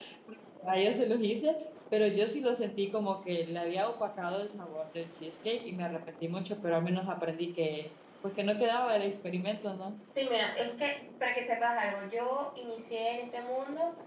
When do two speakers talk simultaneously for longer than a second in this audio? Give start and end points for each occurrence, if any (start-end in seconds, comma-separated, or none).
none